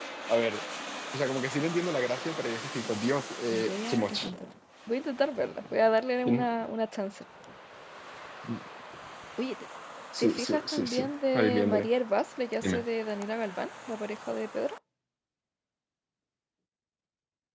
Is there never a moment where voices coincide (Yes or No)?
No